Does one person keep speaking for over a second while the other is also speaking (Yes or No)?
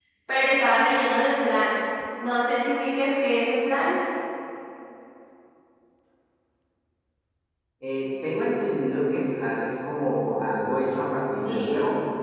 No